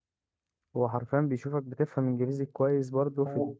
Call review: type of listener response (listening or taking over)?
taking over